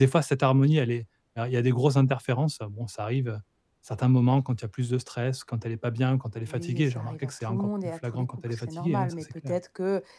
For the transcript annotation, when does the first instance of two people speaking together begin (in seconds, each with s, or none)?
6.4 s